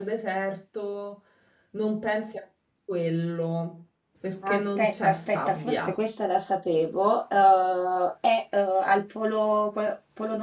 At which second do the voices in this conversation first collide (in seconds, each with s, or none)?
4.4 s